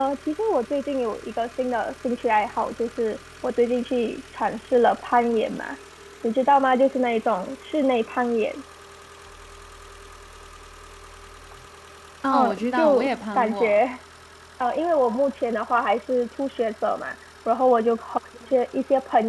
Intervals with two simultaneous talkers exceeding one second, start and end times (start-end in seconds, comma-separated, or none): 12.3-13.8